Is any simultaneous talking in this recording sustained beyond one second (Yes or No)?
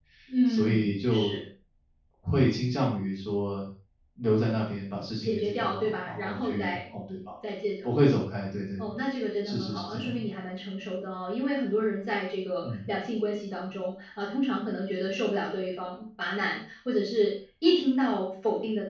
Yes